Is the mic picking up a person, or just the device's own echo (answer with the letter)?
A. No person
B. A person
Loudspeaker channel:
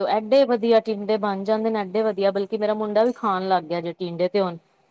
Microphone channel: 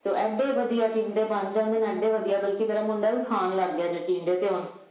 B